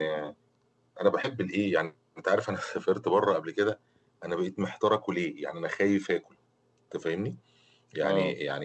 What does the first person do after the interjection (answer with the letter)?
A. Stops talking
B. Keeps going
B